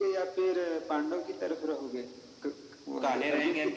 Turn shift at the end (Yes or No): Yes